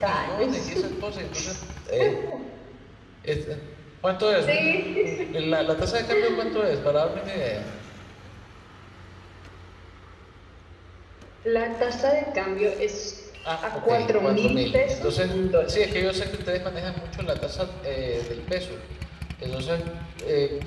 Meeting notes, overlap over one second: present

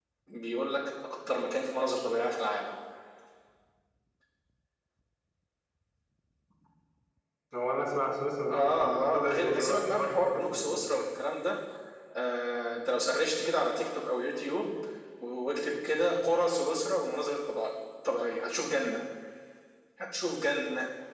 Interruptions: present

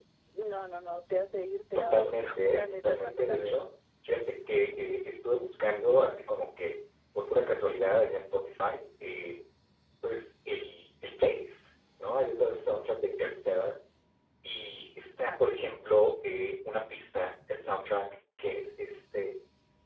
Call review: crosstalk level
present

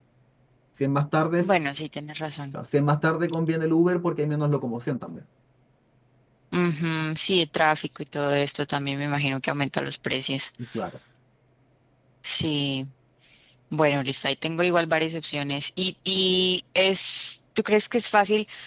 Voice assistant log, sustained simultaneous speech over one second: none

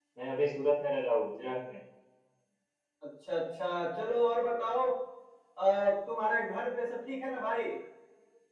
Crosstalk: none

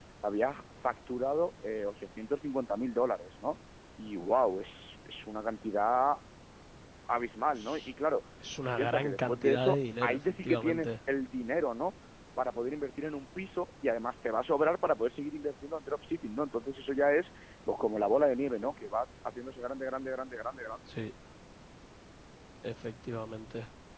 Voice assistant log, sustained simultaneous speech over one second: present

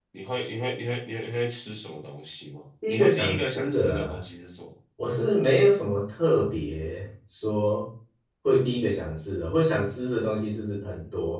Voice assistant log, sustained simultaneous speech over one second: present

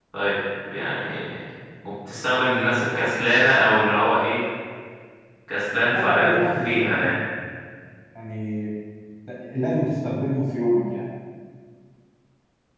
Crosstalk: present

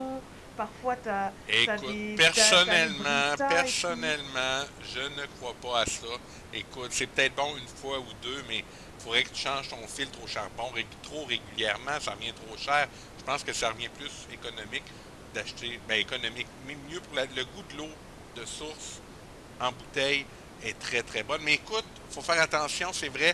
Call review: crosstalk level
present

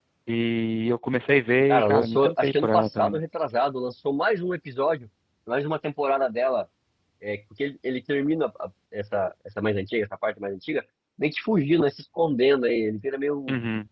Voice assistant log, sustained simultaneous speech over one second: present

